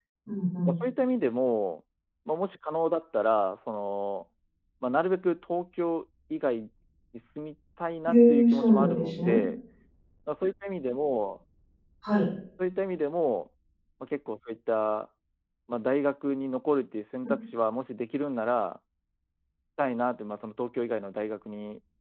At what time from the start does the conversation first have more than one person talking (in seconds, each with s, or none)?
8.1 s